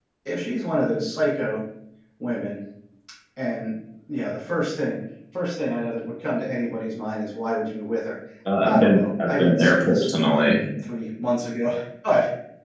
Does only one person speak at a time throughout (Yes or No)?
No